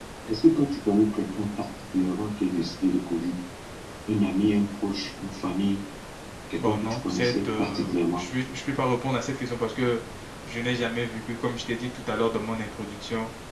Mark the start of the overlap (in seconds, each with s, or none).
6.6 s